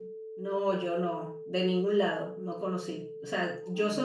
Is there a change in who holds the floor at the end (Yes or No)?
No